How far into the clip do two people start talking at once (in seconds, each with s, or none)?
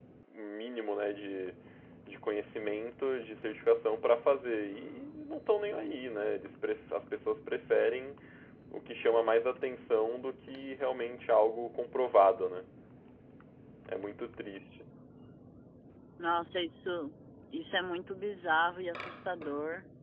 none